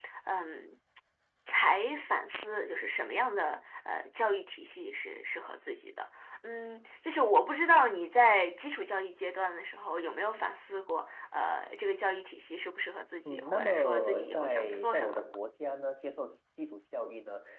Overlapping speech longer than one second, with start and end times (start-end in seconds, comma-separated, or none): 13.2-15.2